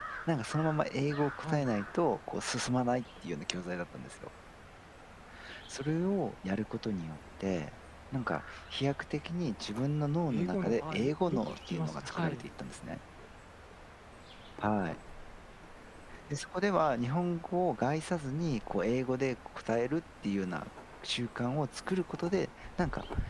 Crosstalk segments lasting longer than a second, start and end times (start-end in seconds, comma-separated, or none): 10.3-12.4